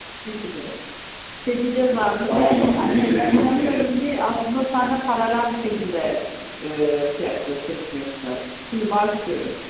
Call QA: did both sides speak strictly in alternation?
No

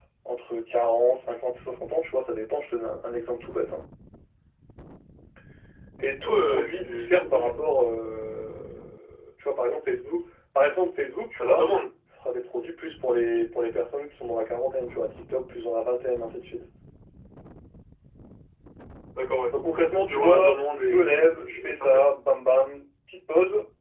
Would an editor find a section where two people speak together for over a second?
Yes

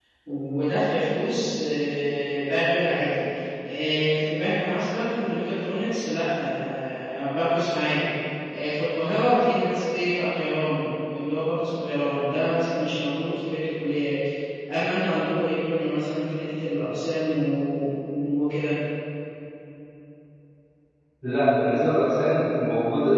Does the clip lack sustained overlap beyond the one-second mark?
Yes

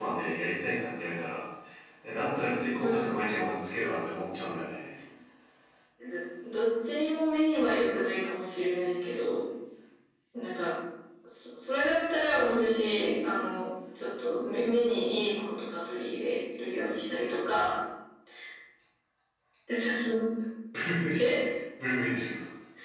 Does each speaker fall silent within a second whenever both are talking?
Yes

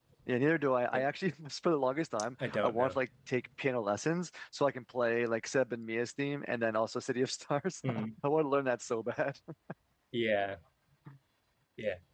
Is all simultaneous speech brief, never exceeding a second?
Yes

